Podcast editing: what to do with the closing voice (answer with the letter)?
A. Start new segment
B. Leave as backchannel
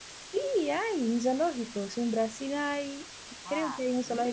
A